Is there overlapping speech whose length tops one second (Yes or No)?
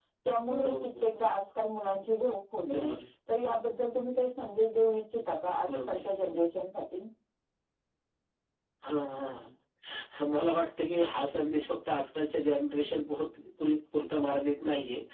No